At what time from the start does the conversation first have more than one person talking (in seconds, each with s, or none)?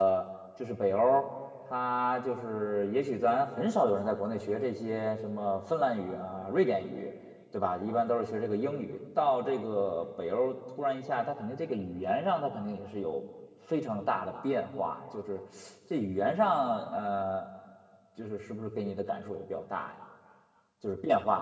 none